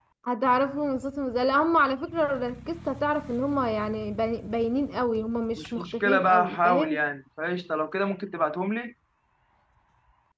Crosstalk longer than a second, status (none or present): present